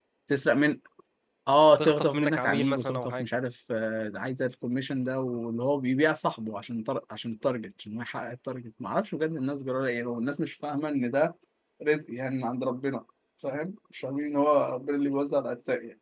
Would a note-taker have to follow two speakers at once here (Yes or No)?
Yes